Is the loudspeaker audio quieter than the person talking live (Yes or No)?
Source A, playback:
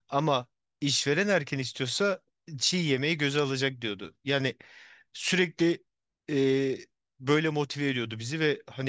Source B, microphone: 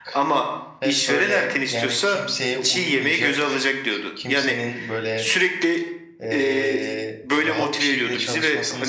No